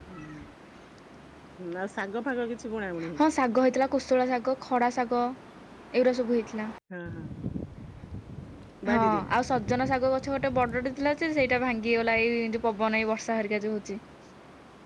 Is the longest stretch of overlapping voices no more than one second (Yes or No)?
Yes